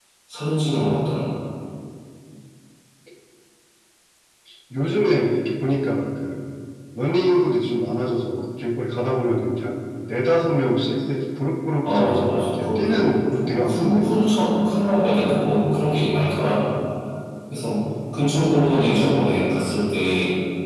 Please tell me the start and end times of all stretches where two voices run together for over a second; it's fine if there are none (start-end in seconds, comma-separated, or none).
11.8-14.1